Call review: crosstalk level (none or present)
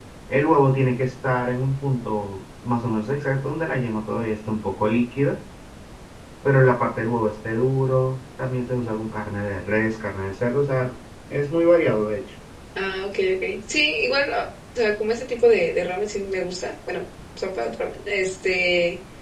none